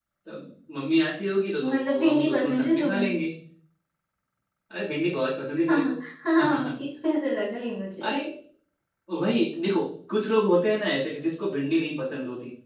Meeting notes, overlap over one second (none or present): present